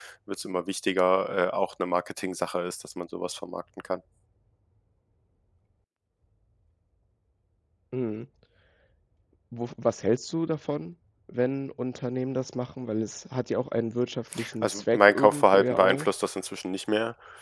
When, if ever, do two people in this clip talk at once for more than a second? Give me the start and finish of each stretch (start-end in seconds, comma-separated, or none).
14.6-16.1